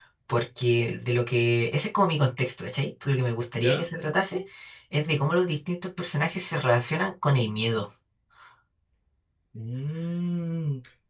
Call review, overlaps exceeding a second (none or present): none